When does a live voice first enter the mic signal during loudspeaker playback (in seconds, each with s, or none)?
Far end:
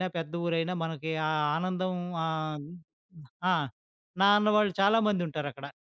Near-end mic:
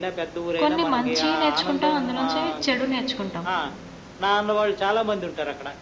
0.6 s